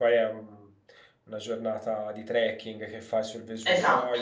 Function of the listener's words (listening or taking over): listening